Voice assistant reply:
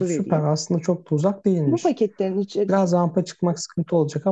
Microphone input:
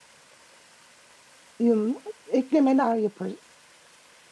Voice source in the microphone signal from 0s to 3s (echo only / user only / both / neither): user only